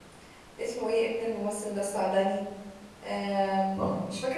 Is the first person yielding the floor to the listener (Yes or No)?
No